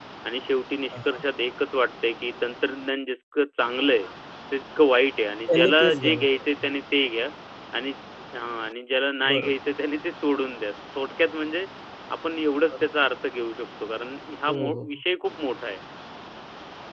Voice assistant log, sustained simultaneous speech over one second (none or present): present